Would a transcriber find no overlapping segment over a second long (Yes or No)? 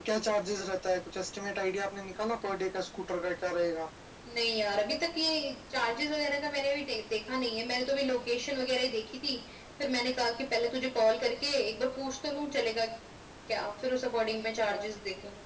Yes